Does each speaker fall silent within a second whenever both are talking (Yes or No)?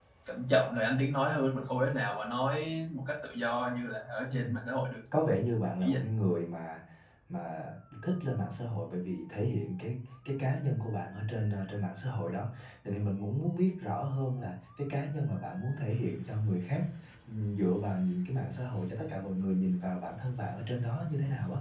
Yes